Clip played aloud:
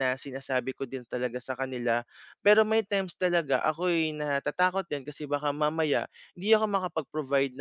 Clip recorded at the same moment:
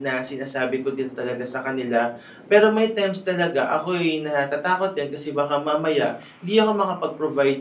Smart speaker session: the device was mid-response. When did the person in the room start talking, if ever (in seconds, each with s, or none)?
none